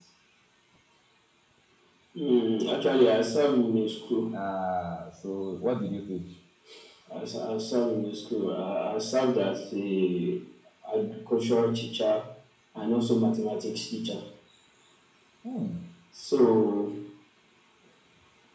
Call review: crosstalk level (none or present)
none